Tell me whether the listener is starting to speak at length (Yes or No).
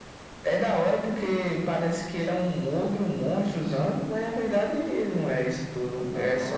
Yes